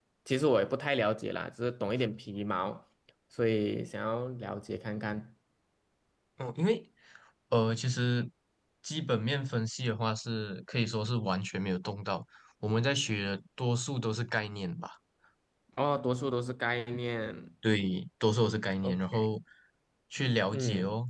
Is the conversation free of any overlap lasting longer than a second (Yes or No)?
Yes